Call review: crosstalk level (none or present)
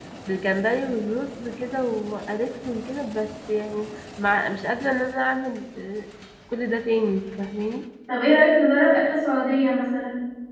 none